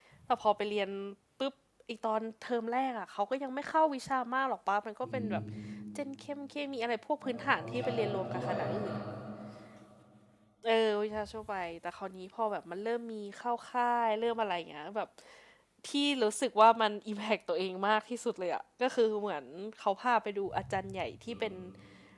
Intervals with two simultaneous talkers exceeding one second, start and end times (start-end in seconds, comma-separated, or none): 7.2-8.9